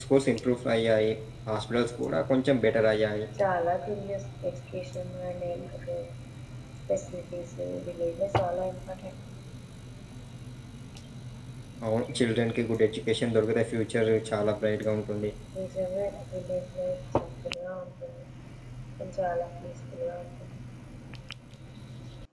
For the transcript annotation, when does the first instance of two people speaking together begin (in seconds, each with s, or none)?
none